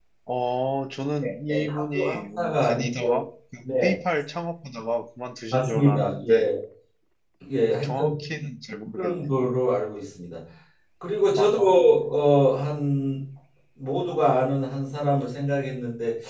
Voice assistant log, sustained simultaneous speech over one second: present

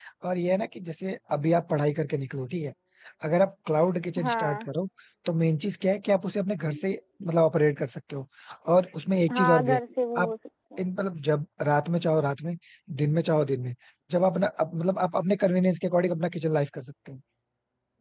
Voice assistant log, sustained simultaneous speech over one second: none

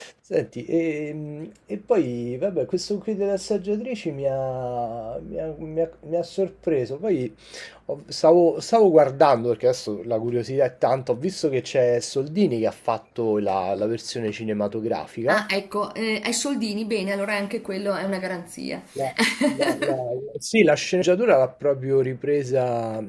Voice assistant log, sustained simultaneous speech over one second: none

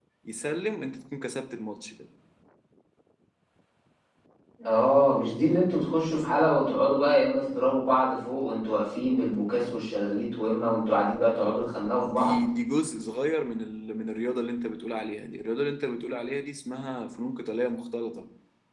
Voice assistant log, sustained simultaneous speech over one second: none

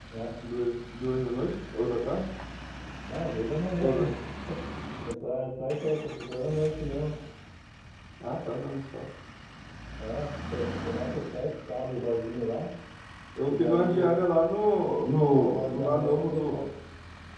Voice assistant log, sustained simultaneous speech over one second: present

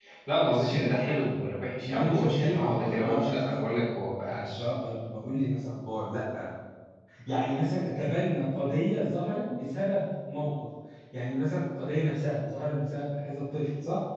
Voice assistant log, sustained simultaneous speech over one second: present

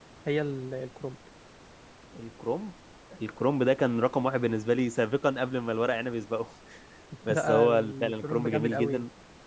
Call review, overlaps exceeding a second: present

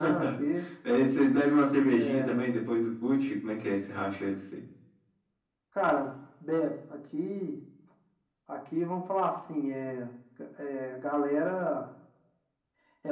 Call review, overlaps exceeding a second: none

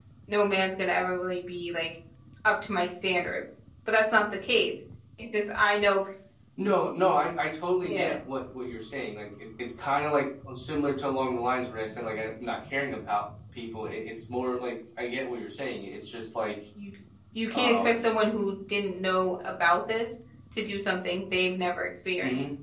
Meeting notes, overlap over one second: none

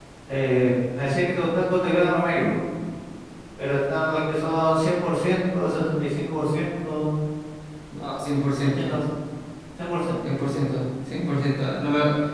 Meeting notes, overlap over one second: none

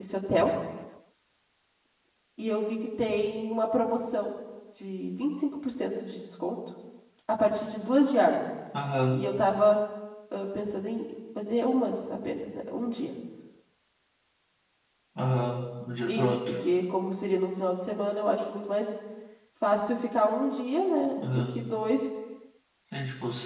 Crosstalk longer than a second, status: none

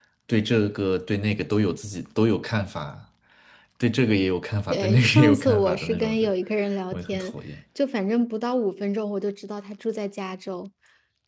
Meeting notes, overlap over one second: present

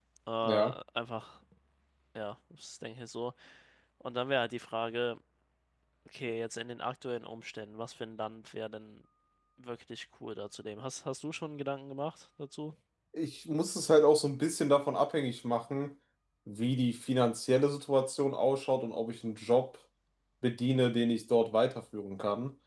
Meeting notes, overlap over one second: none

